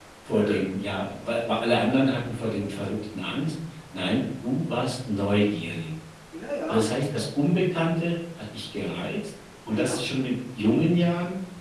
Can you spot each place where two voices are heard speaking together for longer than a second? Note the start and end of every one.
none

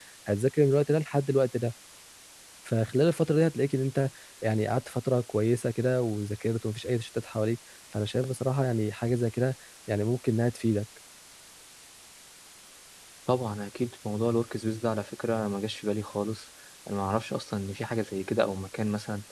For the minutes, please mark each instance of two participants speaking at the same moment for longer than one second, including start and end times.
none

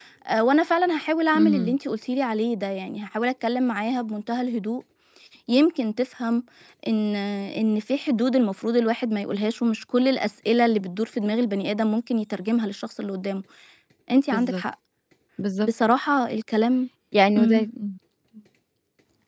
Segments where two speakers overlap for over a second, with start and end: none

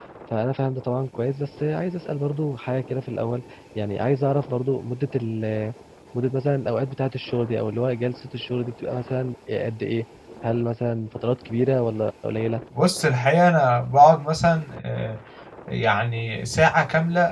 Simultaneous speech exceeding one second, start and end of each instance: none

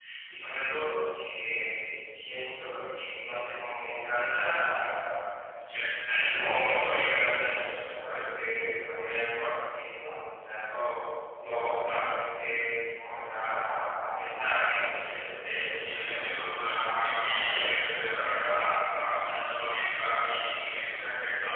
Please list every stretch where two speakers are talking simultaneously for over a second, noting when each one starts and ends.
15.8-18.0

